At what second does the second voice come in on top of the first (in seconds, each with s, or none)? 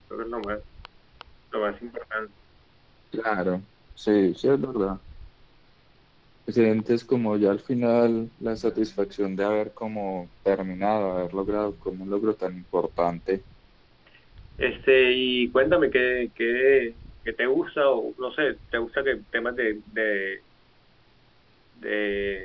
none